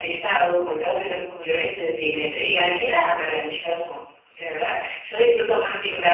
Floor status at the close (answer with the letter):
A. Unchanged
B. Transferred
A